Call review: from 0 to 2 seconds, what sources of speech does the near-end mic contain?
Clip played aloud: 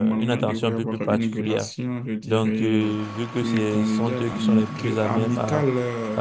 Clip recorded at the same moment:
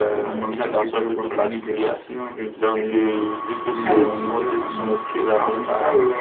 echo only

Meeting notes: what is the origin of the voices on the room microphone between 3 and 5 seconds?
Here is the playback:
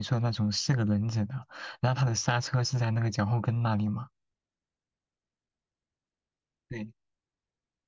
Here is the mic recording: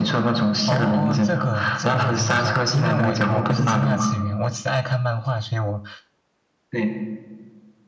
both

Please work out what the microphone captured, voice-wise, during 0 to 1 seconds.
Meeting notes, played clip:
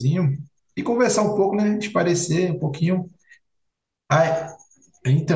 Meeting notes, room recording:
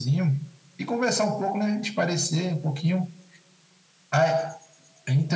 echo only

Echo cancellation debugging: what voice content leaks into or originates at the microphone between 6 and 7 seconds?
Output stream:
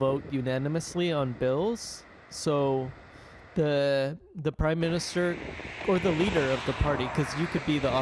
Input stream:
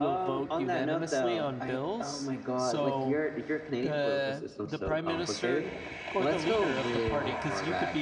both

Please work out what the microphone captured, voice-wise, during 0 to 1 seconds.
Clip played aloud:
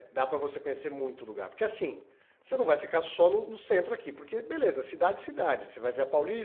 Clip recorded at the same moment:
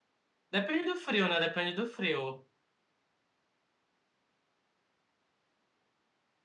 user only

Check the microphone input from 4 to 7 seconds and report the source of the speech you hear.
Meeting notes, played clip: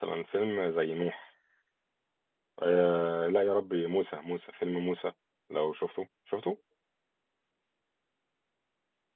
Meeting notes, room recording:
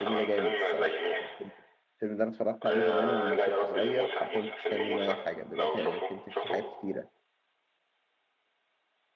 both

